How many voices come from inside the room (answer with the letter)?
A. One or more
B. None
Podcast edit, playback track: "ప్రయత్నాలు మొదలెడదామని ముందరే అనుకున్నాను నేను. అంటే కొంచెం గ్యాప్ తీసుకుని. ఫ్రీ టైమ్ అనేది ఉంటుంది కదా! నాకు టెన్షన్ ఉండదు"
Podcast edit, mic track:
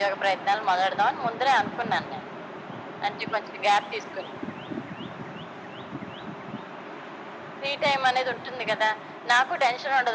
B